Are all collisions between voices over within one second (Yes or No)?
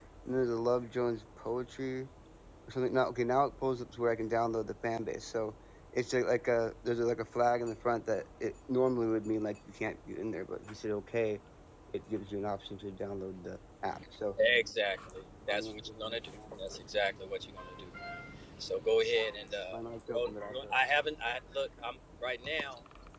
No